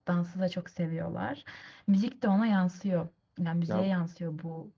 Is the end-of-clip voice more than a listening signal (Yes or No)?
No